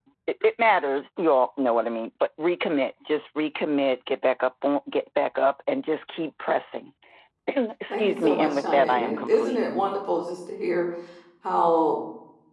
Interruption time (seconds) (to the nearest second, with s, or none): 8 s